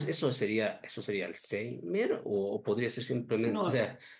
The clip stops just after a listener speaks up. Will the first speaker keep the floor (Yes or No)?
Yes